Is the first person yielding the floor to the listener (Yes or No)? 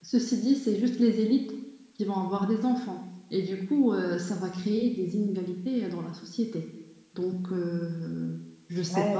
Yes